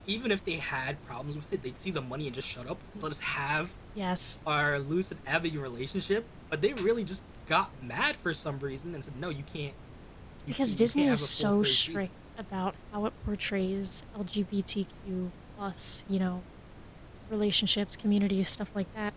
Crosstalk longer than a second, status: present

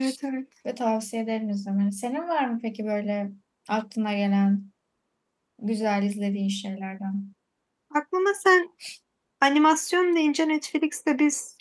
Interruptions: none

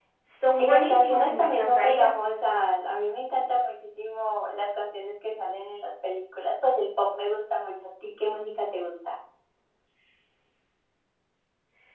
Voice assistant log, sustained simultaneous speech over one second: present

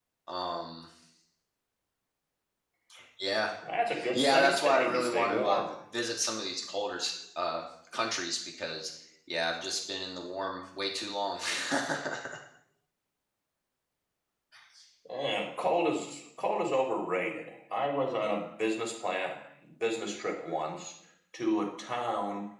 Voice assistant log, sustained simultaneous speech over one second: present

